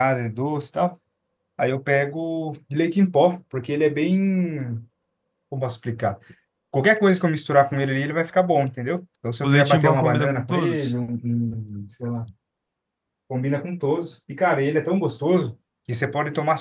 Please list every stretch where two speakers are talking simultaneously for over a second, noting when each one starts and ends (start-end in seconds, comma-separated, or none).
9.4-10.9